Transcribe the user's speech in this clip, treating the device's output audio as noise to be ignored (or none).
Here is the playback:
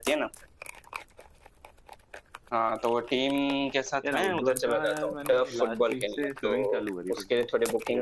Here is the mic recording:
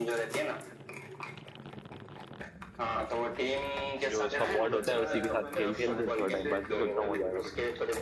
जो उसका बोर्ड होता है उसी के साथ खेल खेल के थोड़ा टाइम पास भी सोच रहा हूँ हो जाएगा